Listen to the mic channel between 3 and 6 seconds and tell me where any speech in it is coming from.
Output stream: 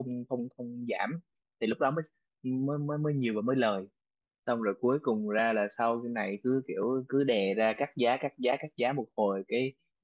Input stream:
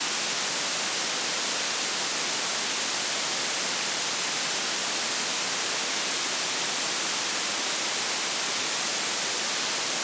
neither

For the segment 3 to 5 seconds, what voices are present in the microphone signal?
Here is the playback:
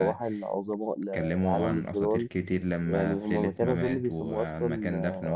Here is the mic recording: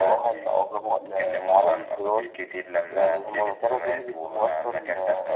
echo only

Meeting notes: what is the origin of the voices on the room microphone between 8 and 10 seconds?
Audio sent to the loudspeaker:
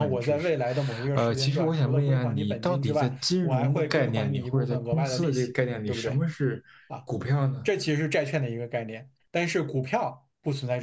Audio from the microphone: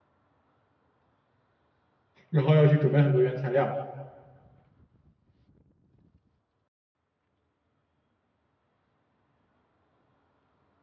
neither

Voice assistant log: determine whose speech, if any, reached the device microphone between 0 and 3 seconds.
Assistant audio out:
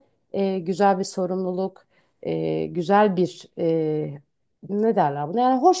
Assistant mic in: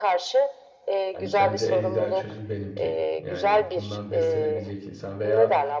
both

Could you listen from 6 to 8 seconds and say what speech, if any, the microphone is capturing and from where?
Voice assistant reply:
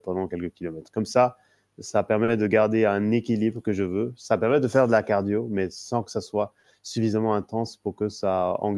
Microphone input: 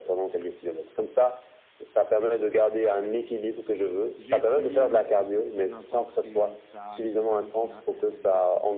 both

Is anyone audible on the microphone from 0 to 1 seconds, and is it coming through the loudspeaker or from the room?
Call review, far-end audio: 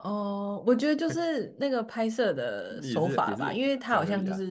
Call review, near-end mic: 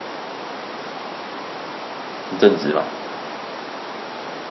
neither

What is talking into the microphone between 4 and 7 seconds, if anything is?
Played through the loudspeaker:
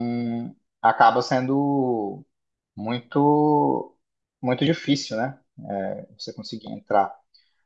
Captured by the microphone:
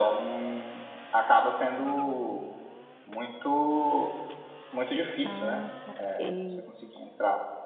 both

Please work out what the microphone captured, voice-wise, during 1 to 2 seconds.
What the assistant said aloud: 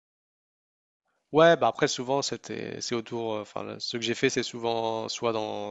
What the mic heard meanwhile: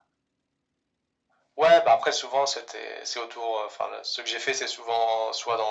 echo only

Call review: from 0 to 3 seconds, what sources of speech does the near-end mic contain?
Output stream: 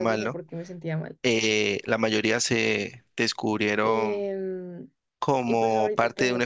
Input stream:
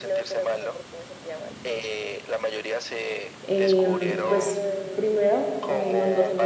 echo only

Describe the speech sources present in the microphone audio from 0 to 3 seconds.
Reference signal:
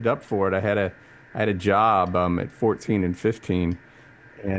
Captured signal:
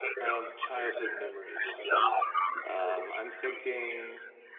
both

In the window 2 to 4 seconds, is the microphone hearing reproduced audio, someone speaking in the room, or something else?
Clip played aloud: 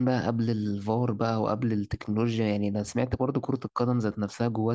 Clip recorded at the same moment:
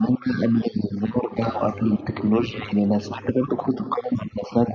both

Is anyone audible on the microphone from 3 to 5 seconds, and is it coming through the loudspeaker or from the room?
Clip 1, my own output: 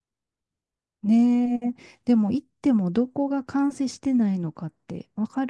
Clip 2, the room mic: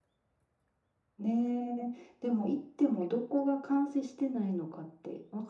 echo only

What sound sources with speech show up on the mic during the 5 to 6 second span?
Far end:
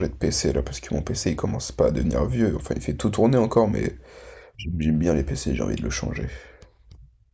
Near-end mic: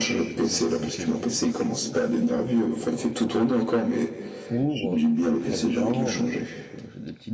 both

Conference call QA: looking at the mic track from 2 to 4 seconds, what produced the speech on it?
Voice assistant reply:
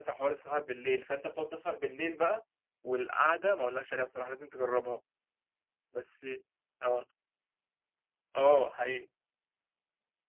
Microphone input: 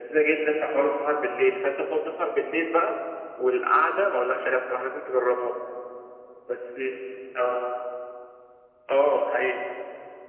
echo only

